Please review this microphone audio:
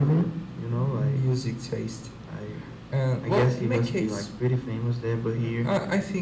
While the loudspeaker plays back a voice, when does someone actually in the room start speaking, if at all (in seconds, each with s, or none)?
none